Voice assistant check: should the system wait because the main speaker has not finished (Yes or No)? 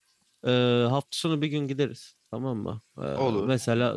Yes